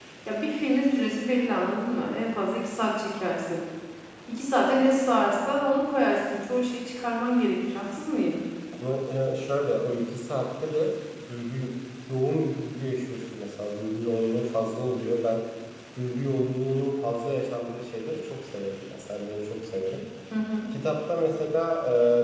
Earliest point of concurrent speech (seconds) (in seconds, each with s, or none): none